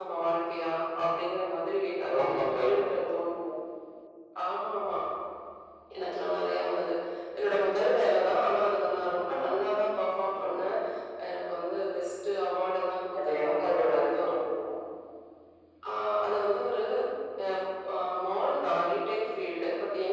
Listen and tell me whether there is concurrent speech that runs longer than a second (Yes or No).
Yes